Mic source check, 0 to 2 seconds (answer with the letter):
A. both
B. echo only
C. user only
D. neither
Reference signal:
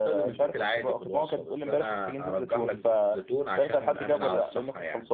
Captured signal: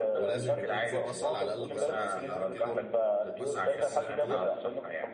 A